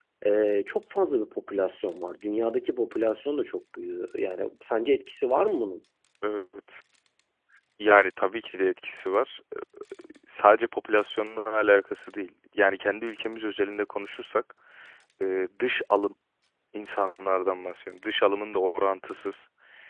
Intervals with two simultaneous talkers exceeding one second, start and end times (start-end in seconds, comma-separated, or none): none